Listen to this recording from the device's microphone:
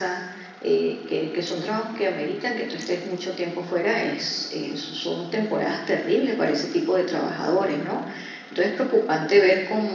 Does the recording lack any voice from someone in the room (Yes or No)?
Yes